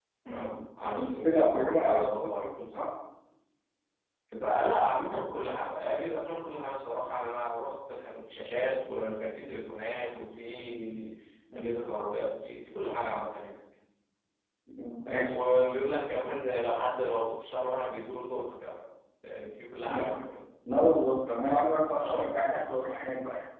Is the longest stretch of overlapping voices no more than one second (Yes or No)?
No